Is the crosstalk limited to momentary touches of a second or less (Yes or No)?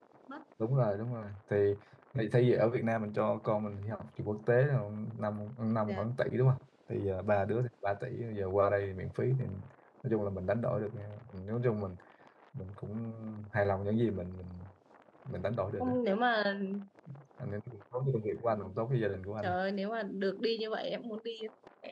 Yes